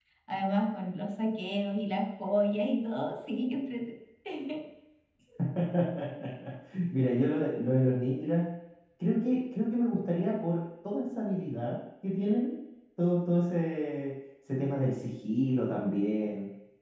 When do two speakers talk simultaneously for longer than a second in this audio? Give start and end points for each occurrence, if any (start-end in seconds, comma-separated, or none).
none